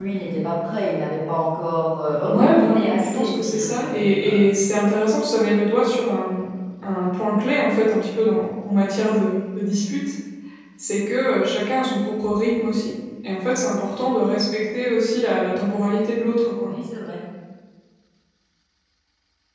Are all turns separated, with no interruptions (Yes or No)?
No